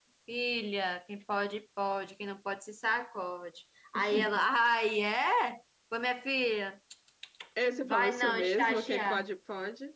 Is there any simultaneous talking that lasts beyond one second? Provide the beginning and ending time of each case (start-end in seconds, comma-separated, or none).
7.9-9.2